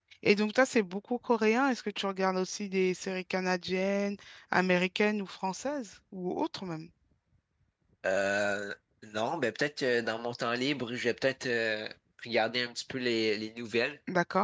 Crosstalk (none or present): none